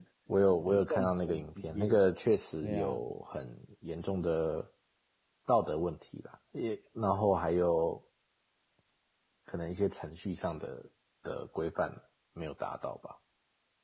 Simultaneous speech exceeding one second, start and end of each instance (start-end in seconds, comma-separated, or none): 0.6-2.0